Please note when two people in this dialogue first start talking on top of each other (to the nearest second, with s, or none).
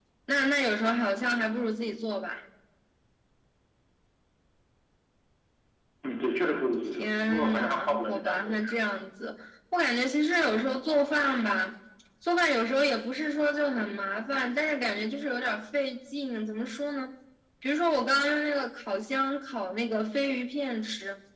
7 s